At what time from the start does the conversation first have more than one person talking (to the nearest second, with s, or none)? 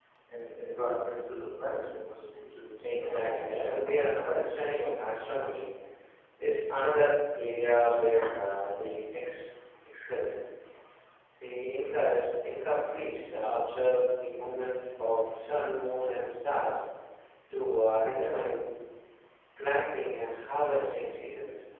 3 s